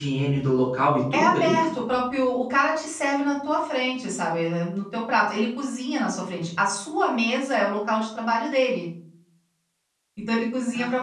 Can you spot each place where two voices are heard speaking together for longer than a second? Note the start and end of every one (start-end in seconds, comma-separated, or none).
none